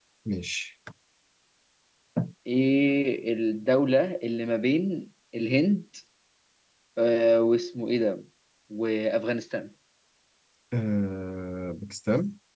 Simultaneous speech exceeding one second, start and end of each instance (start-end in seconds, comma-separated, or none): none